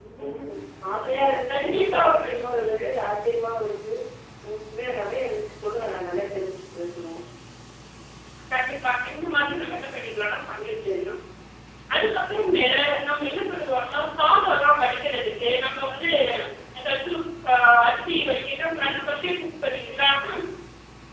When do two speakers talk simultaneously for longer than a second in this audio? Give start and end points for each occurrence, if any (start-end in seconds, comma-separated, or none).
1.5-2.9